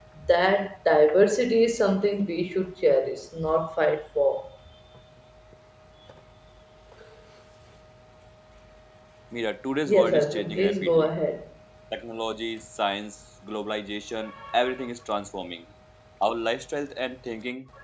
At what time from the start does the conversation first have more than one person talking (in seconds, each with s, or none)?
9.9 s